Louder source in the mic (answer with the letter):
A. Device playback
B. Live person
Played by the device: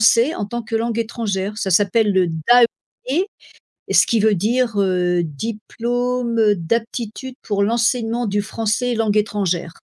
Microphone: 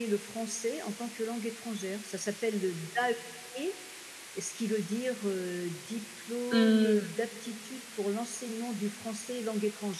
B